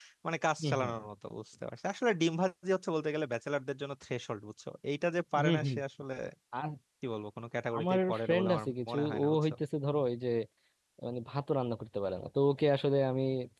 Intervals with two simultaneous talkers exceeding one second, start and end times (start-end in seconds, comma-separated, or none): 7.8-9.5